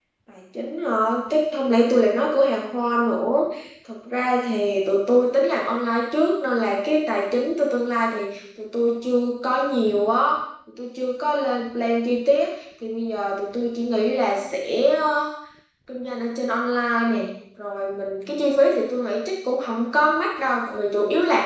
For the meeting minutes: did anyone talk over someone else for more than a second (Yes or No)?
No